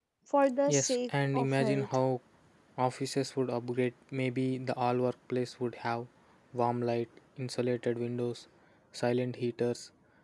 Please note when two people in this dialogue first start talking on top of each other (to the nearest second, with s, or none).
1 s